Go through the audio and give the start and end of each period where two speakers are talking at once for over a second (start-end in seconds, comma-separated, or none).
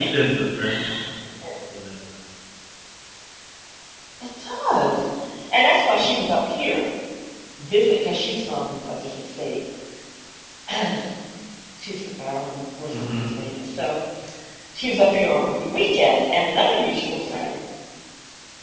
none